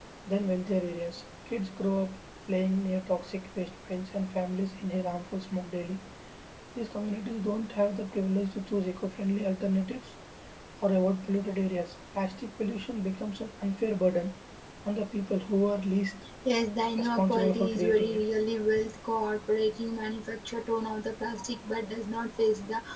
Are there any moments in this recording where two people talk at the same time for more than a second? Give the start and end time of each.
17.0-18.2

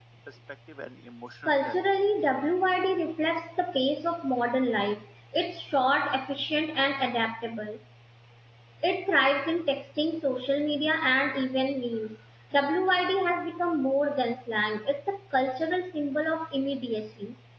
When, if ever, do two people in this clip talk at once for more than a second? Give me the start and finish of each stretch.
none

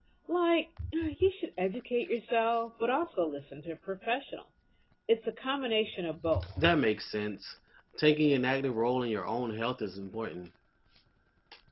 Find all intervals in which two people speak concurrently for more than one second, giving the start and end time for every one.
none

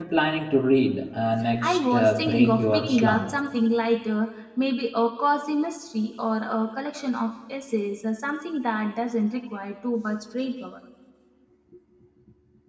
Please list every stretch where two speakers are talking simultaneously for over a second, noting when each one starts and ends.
1.6-3.3

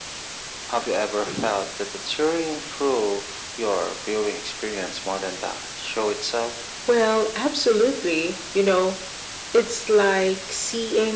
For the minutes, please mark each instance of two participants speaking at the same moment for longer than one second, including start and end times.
none

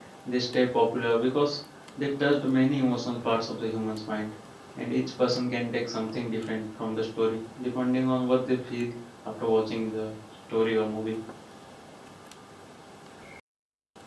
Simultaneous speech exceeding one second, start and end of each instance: none

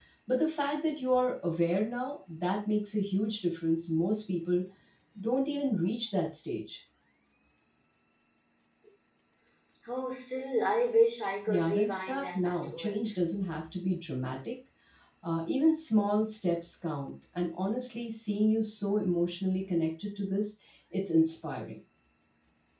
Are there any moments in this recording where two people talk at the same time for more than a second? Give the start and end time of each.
11.5-13.1

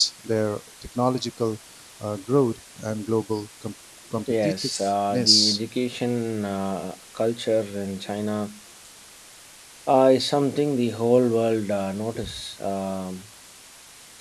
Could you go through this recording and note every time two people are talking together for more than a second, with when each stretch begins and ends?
4.3-5.6

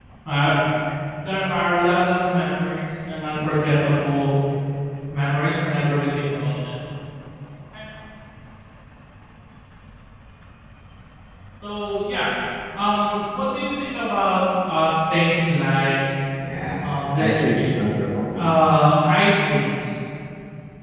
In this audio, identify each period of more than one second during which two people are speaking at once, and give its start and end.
none

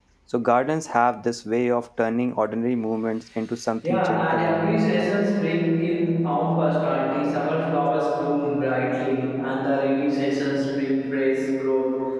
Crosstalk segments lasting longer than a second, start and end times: 3.9-5.1

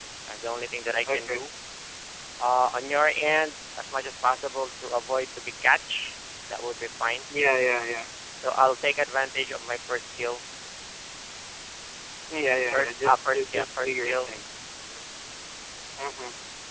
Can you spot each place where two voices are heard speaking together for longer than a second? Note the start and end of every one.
12.7-14.3

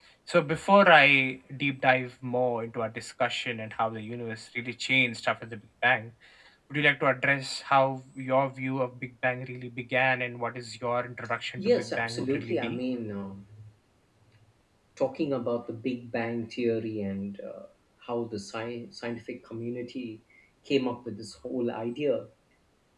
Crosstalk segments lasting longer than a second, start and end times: 11.6-12.8

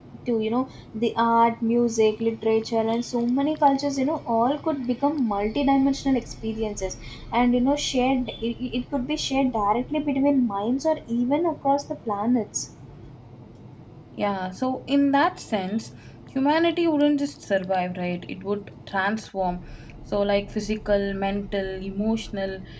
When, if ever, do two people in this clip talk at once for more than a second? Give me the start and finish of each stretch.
none

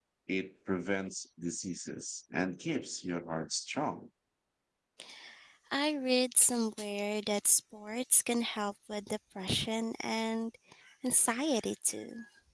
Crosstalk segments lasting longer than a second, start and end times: none

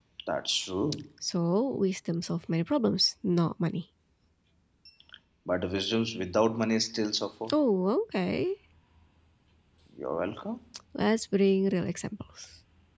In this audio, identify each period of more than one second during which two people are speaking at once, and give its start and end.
none

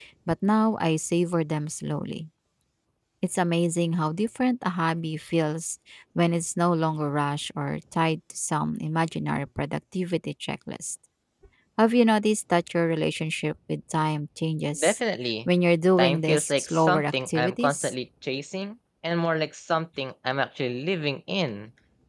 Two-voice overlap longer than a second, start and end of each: 16.0-17.9

